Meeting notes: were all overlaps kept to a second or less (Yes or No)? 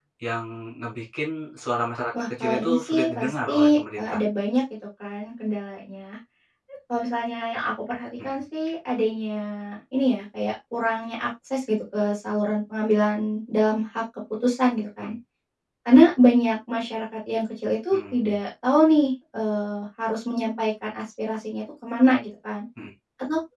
No